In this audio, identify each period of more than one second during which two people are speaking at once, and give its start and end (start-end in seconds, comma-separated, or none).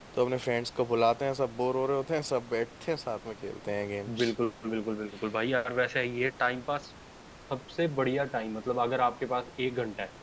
none